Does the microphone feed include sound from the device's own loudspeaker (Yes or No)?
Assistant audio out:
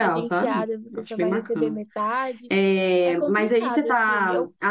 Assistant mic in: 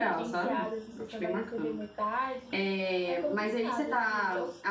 Yes